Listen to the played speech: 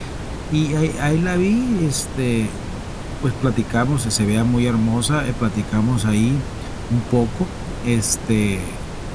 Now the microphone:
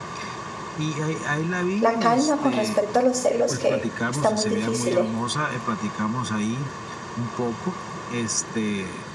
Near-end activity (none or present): present